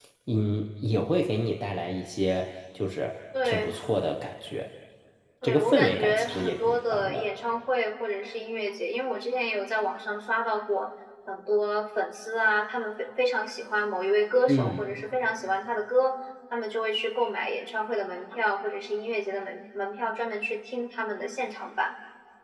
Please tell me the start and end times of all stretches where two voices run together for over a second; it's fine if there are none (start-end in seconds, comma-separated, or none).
5.4-7.2